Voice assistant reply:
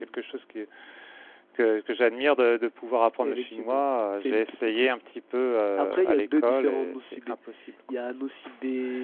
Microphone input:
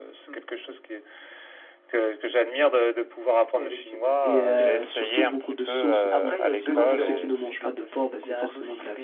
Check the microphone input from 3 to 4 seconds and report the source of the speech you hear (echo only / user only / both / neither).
echo only